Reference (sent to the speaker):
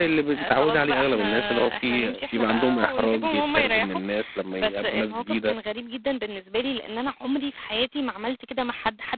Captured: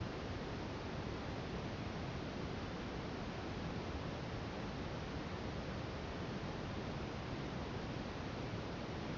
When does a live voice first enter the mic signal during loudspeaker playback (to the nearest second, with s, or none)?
none